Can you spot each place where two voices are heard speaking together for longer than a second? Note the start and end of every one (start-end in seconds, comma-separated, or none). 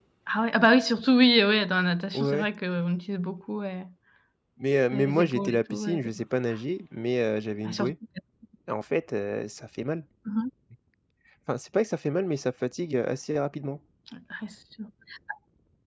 4.9-6.2